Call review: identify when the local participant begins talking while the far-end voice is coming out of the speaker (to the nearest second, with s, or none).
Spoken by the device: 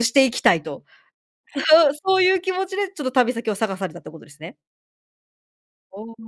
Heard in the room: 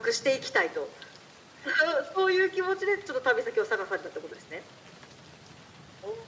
none